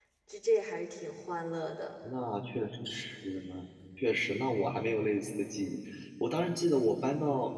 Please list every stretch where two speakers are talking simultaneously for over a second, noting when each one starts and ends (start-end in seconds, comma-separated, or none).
none